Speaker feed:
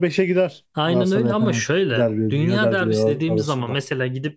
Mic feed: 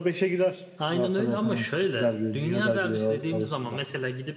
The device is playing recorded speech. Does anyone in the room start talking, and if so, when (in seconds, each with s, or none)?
none